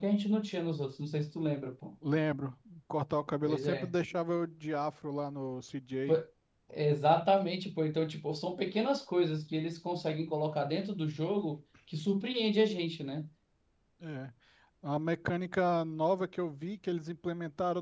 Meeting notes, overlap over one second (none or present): none